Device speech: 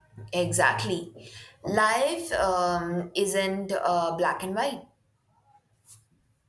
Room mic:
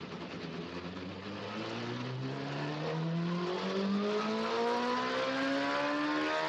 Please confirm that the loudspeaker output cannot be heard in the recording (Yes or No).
Yes